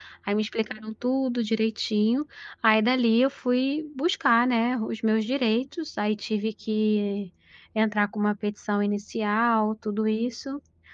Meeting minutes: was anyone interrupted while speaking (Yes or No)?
No